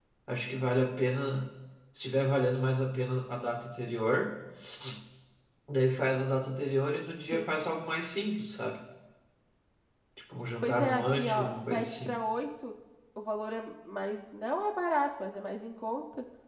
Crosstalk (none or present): present